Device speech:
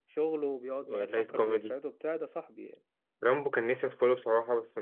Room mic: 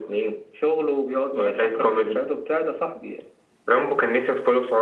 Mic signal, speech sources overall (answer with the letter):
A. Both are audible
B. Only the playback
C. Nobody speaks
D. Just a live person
B